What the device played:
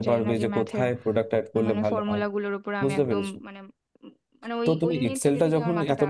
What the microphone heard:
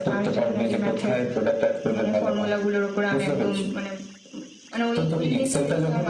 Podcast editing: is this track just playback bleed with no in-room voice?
Yes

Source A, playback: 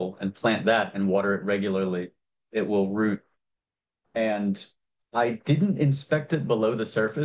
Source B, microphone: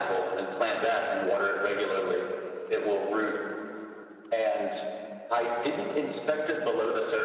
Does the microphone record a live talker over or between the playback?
No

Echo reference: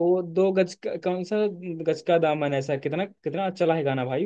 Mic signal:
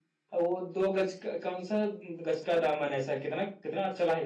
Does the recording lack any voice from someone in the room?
Yes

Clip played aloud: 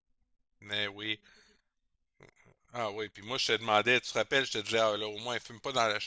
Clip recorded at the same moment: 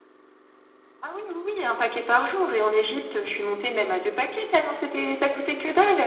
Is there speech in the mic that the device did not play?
Yes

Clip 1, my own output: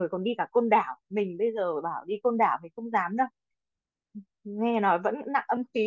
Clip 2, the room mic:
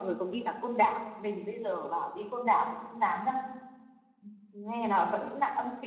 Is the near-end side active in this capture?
No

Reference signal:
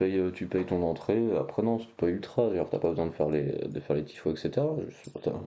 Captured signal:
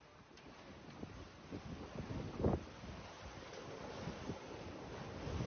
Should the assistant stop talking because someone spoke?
No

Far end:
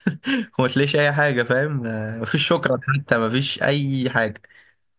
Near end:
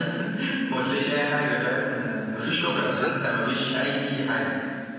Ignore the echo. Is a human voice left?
Yes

